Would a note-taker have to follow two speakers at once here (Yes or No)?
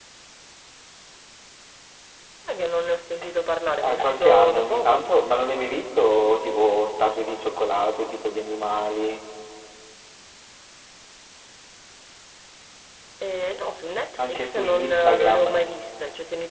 Yes